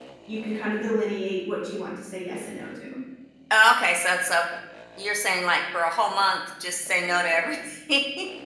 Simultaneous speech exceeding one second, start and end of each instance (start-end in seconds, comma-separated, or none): none